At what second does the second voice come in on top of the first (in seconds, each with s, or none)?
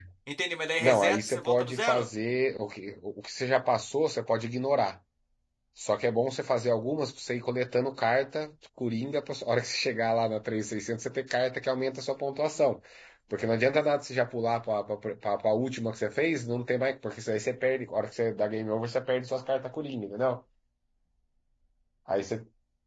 0.8 s